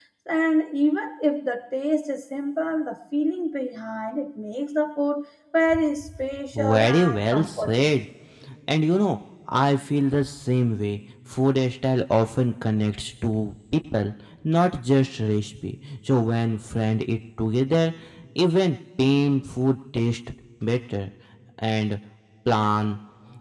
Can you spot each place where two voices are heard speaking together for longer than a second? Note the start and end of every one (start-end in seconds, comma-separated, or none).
6.5-7.9